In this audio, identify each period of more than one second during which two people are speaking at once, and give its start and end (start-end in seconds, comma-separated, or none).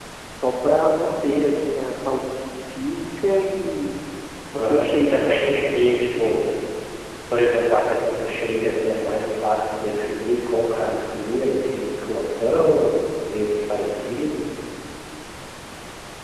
4.6-5.8